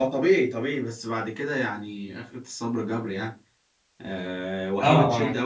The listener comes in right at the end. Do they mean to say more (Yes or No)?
No